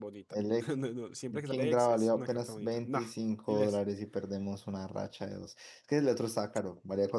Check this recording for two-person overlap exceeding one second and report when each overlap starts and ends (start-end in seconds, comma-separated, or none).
1.5-3.0